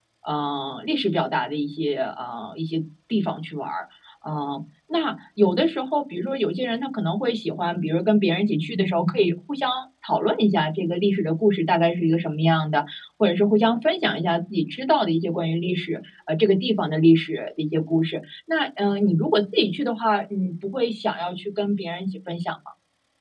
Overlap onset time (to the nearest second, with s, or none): none